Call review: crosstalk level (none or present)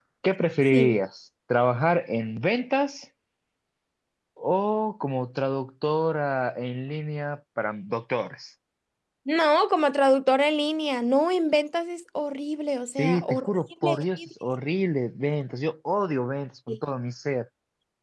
present